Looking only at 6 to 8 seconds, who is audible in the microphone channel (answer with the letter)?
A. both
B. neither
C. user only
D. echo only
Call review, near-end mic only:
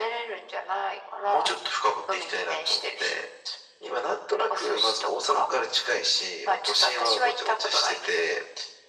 D